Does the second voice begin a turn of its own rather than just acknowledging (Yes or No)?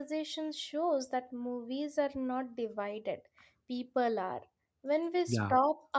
No